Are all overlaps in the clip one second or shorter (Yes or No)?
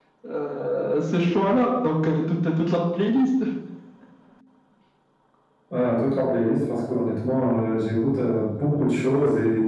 Yes